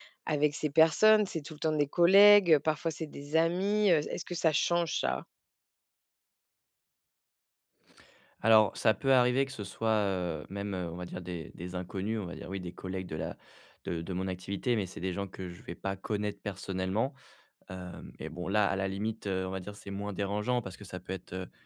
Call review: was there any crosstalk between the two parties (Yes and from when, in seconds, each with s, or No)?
No